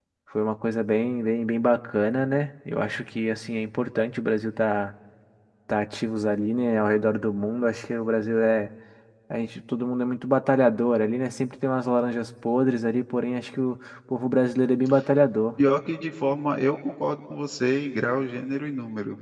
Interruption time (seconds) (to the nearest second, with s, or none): none